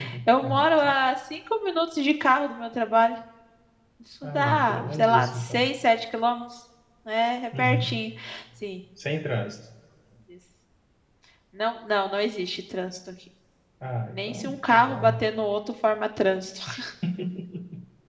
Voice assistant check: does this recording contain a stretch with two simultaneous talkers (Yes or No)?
Yes